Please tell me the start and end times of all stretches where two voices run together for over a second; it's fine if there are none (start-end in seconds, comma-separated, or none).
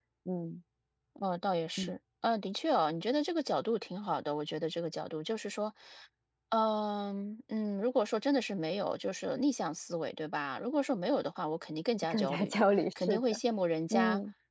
none